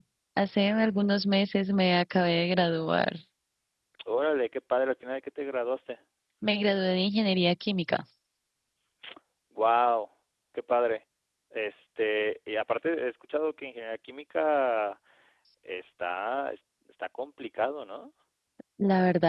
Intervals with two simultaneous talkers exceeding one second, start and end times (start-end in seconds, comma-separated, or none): none